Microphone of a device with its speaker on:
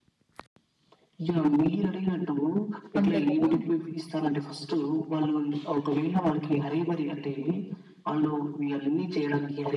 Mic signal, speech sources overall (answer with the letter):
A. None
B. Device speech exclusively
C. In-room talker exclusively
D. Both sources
D